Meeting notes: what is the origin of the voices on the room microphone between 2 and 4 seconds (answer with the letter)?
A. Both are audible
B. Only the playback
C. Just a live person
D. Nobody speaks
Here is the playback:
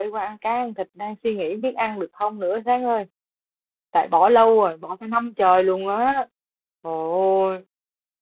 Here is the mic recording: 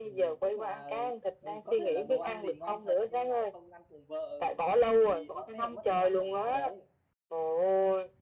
A